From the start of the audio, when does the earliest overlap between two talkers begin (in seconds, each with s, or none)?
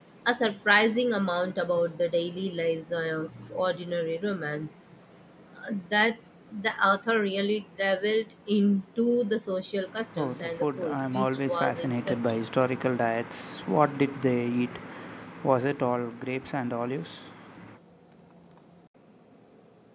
10.2 s